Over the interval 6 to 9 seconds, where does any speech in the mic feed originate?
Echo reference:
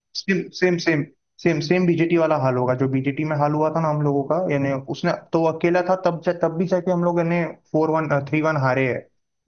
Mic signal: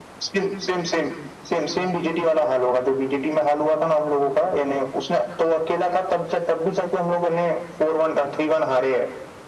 echo only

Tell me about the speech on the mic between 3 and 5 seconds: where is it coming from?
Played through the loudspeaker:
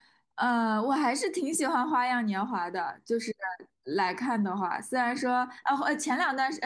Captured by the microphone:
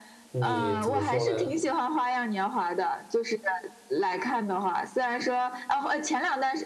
echo only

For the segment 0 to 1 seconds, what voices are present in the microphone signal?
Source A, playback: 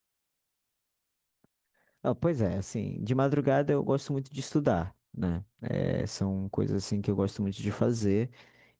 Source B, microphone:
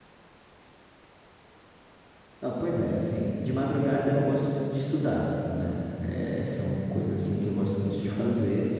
neither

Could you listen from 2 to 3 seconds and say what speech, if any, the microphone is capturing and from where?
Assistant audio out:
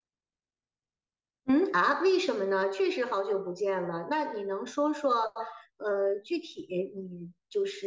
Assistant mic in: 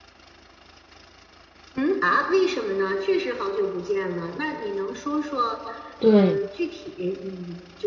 echo only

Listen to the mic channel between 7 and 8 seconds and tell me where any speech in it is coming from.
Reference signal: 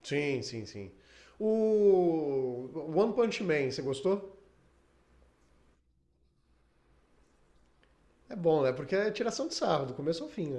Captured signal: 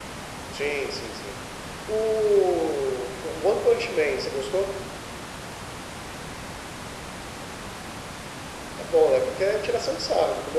neither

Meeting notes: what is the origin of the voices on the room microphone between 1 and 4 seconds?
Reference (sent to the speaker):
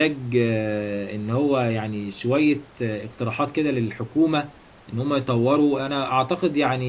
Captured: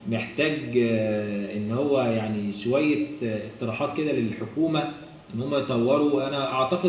echo only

